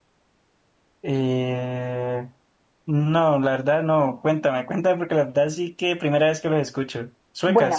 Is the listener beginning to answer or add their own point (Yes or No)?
Yes